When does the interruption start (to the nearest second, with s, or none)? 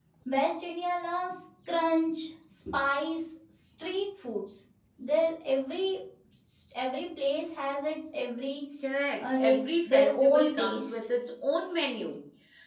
9 s